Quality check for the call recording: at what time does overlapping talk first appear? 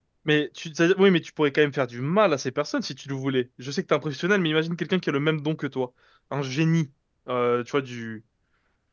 none

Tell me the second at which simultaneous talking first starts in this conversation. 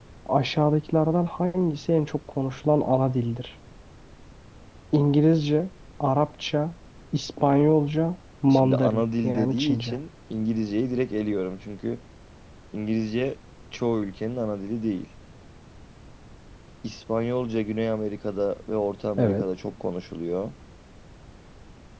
9 s

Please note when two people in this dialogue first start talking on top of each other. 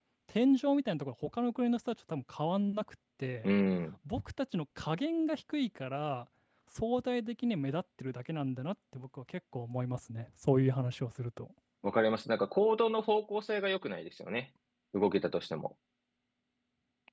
none

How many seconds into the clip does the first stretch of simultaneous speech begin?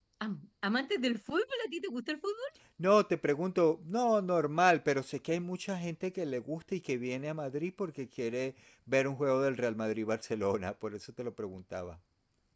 none

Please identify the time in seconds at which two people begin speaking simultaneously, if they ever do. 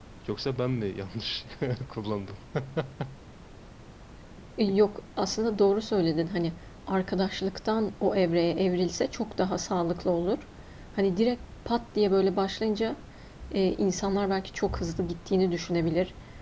none

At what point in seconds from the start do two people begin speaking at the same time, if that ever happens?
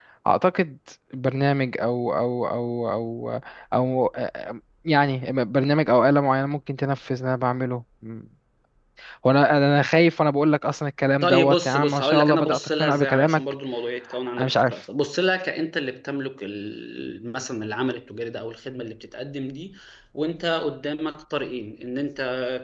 11 s

